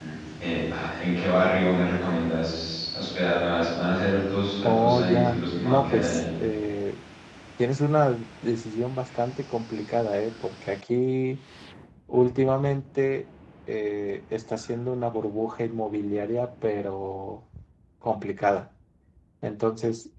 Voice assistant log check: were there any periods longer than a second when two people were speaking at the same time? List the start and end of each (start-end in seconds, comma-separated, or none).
4.6-6.2